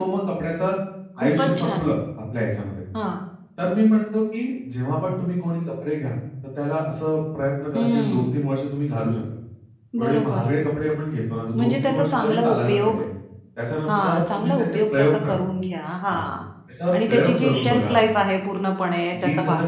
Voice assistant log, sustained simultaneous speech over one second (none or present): present